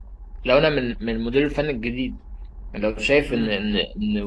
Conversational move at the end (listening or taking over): listening